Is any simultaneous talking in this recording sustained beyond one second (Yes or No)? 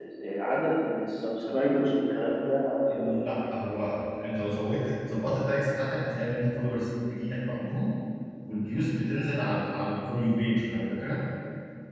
No